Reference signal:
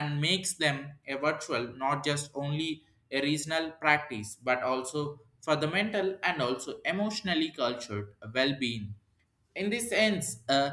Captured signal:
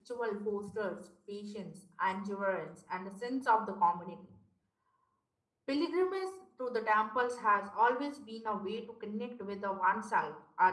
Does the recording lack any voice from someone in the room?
No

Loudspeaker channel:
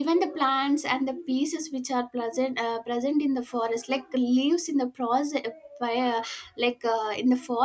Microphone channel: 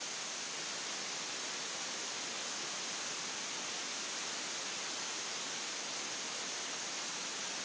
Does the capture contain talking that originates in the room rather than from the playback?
No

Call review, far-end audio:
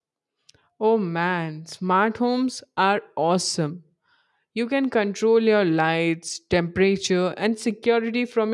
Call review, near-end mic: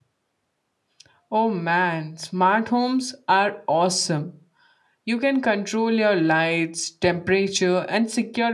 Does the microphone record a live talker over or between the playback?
No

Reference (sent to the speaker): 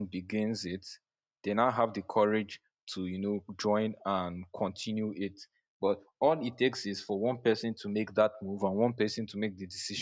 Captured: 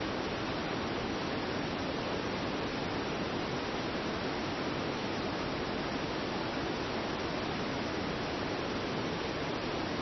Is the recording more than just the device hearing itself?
No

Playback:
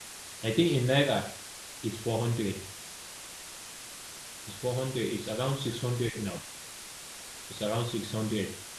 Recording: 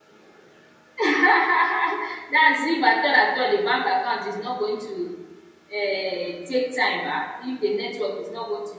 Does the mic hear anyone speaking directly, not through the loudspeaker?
Yes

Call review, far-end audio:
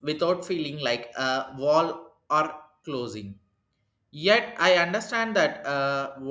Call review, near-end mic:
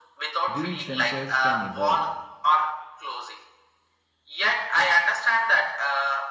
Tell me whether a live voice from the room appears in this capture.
Yes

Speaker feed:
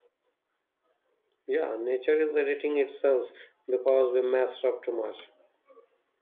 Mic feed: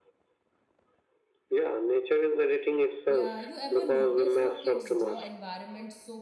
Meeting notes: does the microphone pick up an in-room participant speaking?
Yes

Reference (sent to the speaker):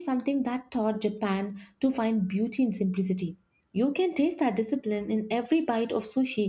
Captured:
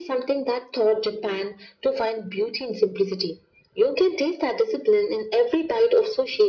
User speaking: No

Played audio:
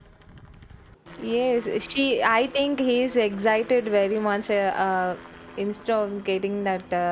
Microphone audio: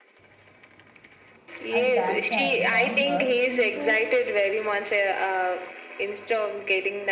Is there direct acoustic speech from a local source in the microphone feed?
Yes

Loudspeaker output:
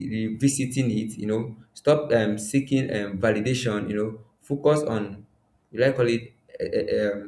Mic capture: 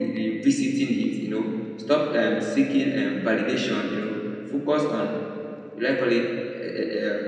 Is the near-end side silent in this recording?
Yes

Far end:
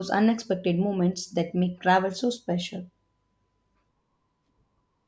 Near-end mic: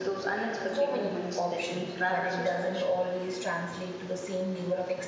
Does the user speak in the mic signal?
Yes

